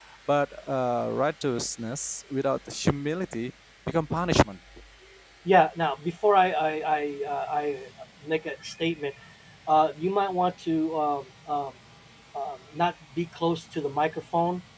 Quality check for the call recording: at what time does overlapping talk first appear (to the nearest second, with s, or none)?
none